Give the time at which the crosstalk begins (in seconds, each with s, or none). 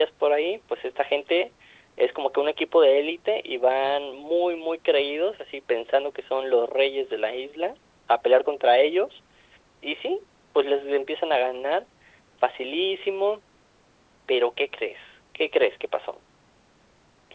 none